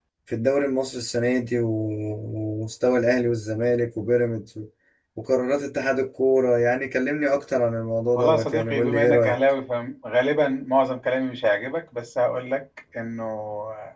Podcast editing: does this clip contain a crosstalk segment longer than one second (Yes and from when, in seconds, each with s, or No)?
Yes, from 8.2 s